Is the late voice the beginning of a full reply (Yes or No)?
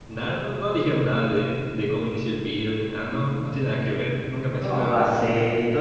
Yes